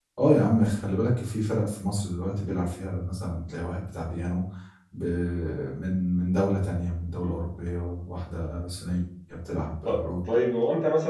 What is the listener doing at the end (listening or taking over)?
taking over